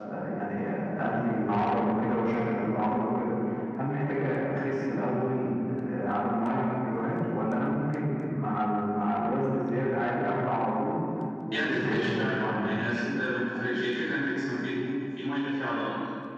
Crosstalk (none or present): present